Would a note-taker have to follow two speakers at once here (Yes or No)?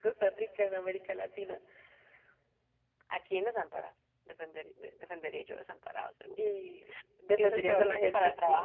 Yes